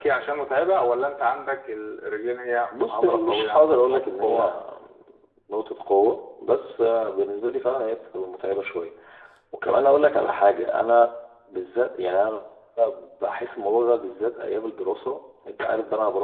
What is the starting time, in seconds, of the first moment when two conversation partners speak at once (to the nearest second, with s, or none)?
3 s